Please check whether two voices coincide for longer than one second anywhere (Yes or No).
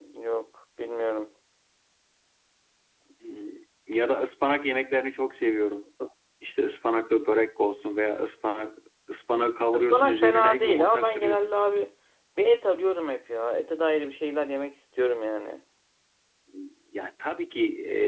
Yes